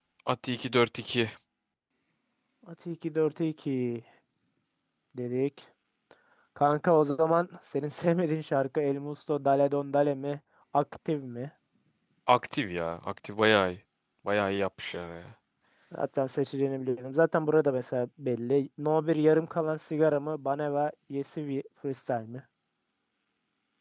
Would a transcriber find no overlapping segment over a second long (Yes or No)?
Yes